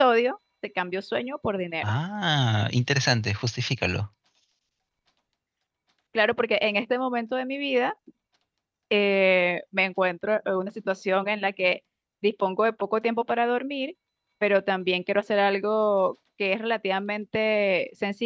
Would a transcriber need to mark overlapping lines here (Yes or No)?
No